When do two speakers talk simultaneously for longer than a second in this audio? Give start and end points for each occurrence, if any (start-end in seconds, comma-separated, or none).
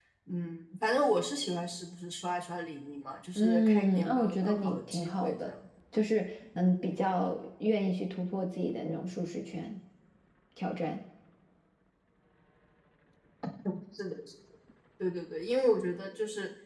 3.4-5.5